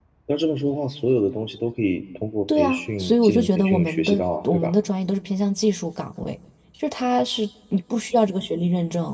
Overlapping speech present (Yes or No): Yes